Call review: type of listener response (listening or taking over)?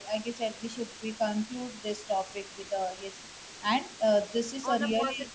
taking over